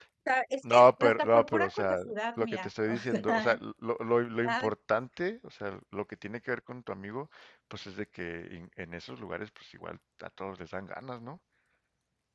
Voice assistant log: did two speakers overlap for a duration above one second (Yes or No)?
Yes